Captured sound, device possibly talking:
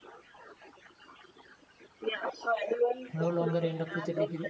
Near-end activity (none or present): present